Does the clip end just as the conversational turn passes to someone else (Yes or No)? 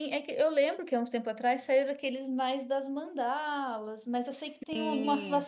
No